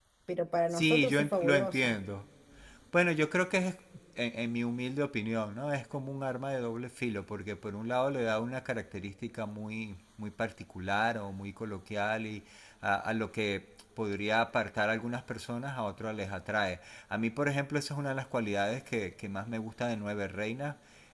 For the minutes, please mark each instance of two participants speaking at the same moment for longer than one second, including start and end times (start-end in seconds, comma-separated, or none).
0.7-1.9